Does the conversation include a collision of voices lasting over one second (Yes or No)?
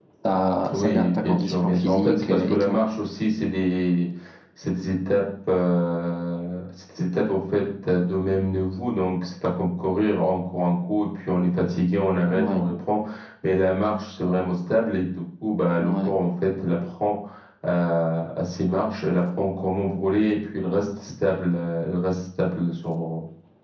Yes